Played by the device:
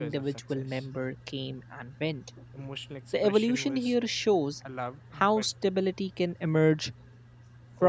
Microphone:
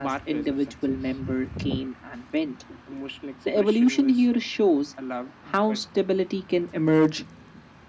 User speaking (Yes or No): No